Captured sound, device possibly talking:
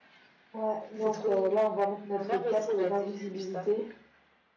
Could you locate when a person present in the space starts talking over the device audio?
0.5 s

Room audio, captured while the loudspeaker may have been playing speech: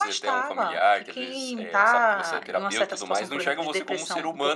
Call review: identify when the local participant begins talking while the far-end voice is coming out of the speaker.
none

